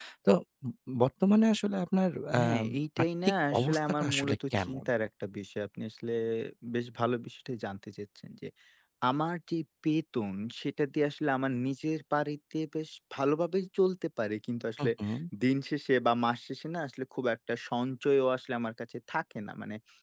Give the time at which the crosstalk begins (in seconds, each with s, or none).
2.3 s